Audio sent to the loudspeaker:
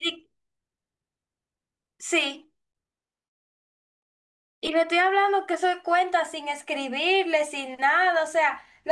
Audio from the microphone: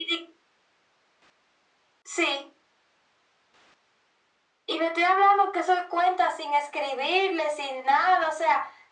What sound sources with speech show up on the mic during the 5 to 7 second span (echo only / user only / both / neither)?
echo only